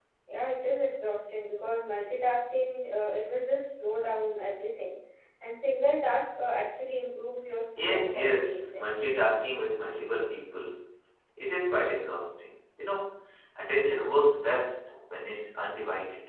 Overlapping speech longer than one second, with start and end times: 7.8-9.1

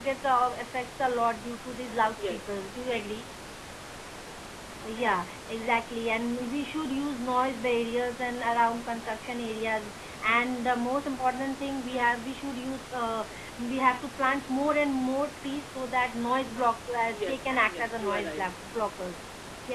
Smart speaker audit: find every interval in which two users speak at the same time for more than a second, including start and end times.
17.1-18.4

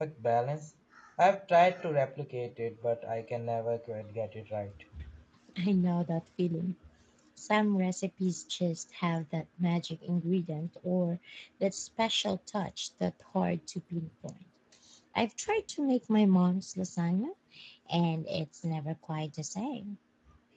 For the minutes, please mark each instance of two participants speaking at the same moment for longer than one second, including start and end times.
none

